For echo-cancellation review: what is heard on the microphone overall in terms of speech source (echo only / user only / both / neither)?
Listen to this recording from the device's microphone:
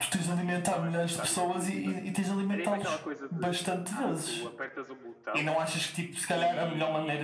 both